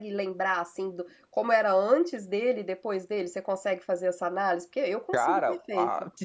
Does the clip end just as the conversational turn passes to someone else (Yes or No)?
Yes